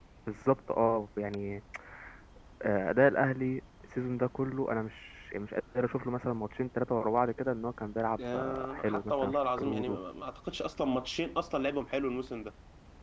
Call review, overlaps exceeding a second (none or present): present